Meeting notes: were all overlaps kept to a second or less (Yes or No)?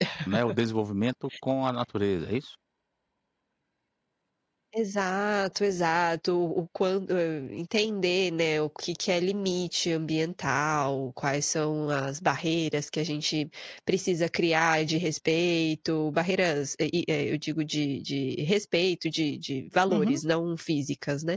Yes